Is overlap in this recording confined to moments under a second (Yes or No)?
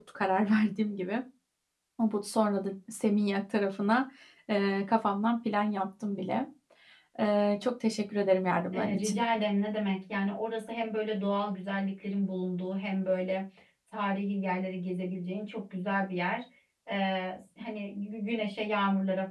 Yes